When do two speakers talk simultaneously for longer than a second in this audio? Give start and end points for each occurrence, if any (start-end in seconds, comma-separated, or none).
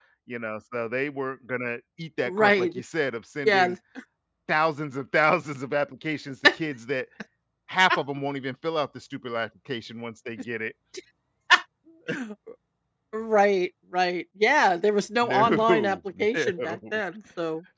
15.2-17.0